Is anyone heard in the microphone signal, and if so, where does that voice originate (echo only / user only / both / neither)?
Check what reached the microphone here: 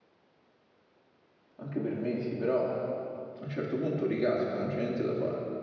user only